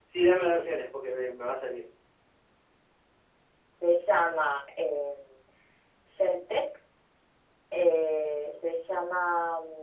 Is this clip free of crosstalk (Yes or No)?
Yes